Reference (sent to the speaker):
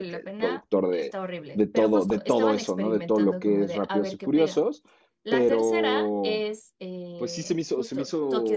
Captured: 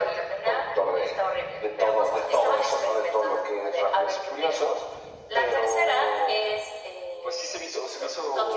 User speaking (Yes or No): No